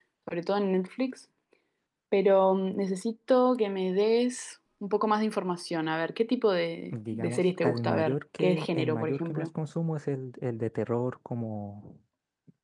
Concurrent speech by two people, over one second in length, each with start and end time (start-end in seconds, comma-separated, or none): 6.9-9.5